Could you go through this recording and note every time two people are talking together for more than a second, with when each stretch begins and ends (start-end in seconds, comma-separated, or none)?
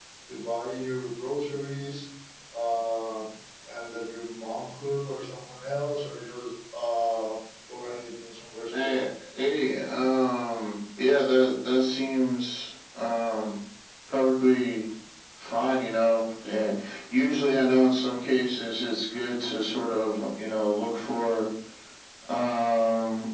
none